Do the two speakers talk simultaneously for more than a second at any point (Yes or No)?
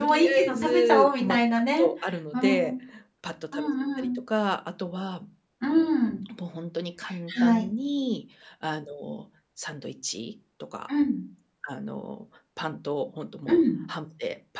Yes